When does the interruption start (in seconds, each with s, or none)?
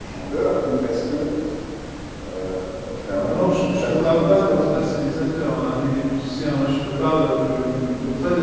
3.2 s